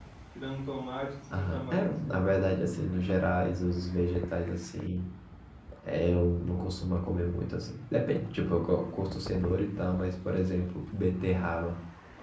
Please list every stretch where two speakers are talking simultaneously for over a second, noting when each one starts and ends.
1.3-2.5

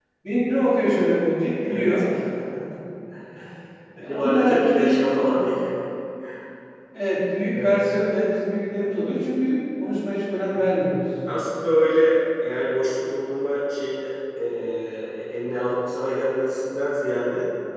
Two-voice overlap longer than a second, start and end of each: 4.0-5.4

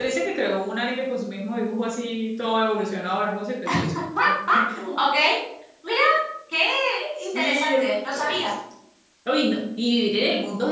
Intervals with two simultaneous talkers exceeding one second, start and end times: 7.2-8.4

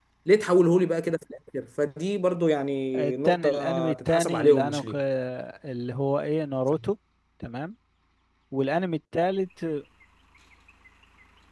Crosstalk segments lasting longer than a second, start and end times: 3.0-4.9

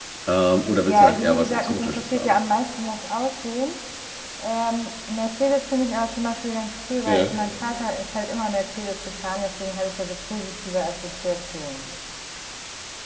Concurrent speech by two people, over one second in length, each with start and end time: 0.8-2.4

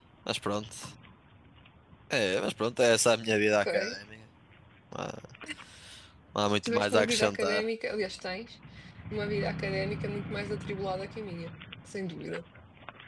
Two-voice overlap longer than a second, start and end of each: 6.4-7.6

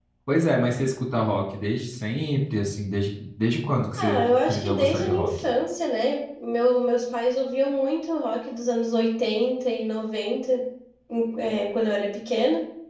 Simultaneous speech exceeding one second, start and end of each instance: 4.0-5.3

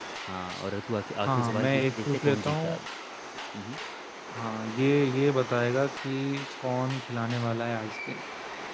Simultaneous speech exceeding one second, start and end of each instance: 1.2-2.7

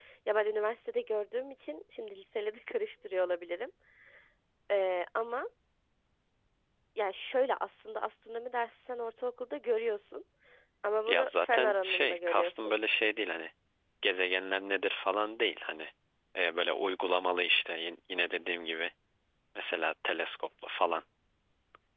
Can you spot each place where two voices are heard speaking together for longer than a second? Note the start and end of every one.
11.0-12.8

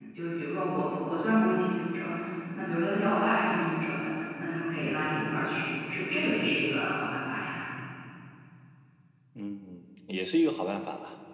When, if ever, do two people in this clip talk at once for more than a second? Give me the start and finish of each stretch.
none

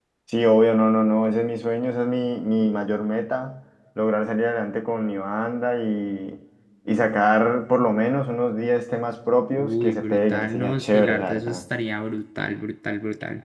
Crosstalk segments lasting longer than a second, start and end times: 9.5-11.6

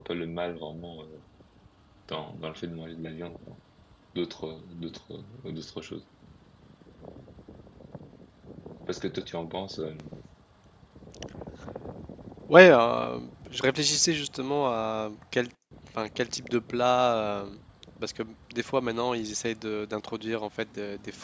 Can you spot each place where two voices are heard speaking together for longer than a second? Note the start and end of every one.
none

